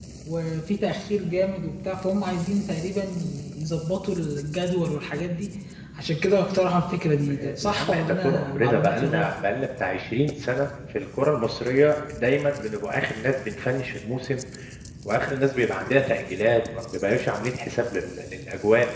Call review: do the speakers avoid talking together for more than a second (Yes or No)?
No